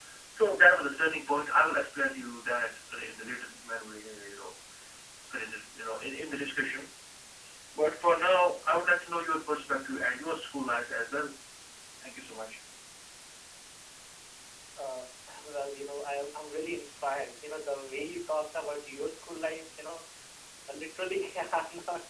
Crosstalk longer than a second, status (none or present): none